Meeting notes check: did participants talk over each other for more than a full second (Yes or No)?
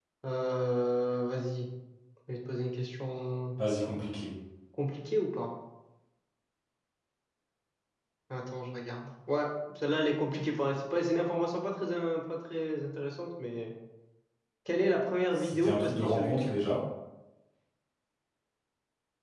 Yes